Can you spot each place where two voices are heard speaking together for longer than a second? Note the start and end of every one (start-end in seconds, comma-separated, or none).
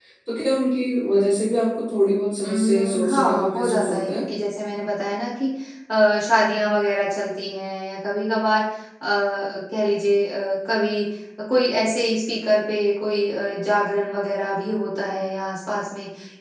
2.4-4.2